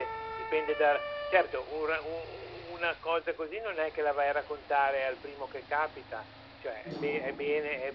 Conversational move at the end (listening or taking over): listening